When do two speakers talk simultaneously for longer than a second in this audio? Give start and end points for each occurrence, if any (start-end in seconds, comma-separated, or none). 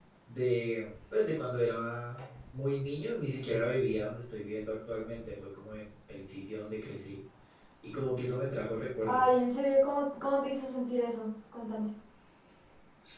none